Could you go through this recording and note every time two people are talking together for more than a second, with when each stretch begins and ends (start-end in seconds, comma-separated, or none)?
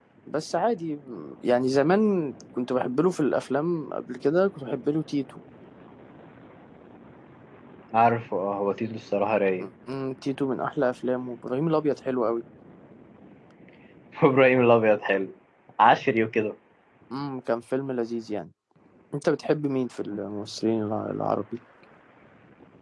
none